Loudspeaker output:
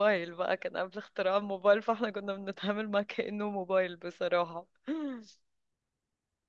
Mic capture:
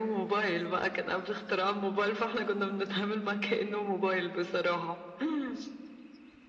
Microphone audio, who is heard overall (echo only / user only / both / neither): echo only